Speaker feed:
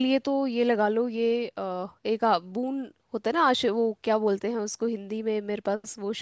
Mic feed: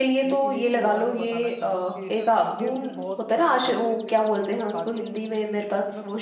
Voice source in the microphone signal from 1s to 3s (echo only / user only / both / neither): both